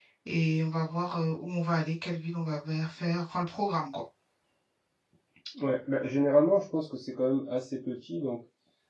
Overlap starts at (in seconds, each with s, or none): none